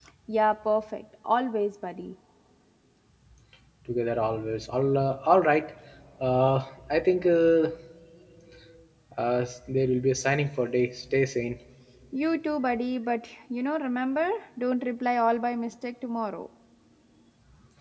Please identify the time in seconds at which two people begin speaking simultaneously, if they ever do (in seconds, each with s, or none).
none